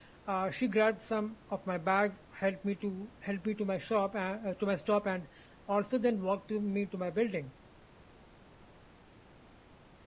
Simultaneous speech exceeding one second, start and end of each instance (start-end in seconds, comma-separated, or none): none